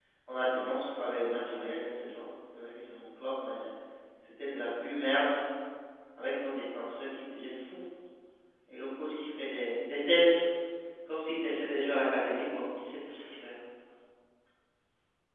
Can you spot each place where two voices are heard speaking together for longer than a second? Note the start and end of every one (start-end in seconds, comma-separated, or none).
none